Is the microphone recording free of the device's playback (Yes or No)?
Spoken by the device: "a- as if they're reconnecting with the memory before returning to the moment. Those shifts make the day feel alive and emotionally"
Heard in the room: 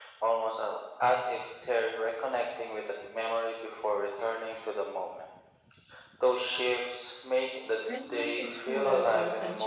No